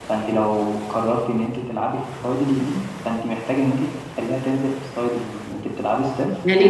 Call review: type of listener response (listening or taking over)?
taking over